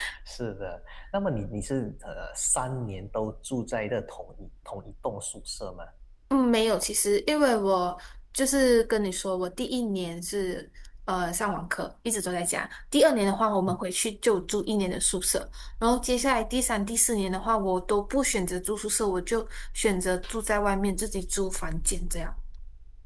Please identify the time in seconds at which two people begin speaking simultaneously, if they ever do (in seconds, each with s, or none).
none